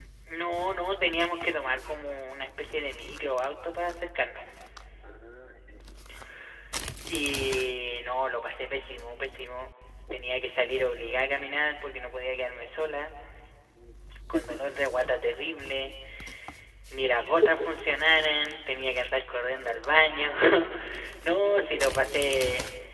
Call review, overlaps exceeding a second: present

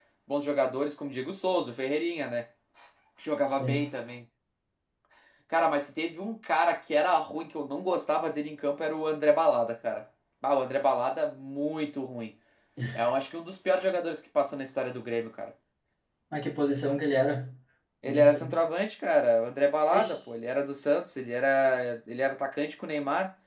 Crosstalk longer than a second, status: none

